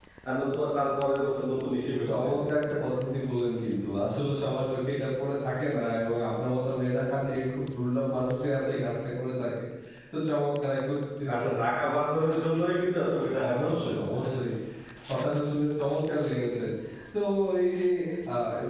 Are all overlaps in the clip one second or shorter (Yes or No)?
Yes